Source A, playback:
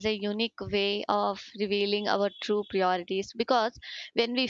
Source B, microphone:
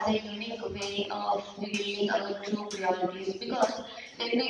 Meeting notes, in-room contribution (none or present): none